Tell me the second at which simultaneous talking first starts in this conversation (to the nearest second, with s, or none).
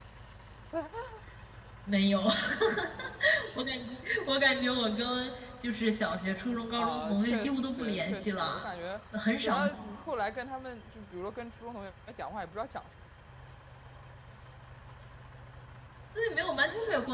7 s